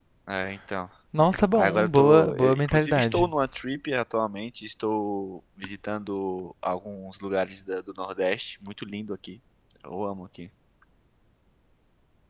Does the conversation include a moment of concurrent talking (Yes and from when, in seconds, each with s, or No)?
Yes, from 1.6 s